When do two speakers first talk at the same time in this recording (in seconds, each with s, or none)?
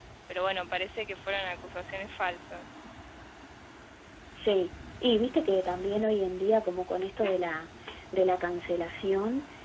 none